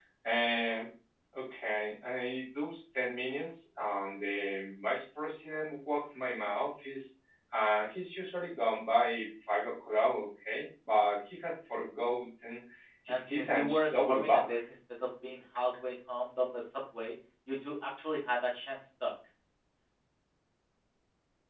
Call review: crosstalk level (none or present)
present